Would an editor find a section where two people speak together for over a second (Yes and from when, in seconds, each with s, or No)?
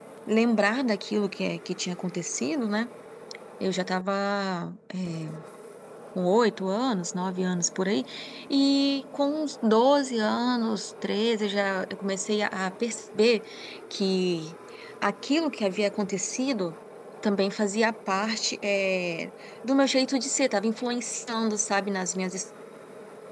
No